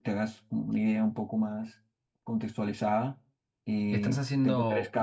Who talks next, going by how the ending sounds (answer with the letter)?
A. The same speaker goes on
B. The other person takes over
B